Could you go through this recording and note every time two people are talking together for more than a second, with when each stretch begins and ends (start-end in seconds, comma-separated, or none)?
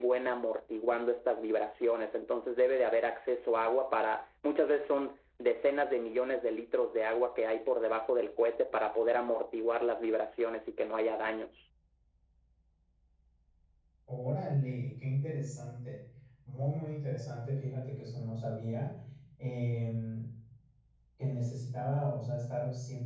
none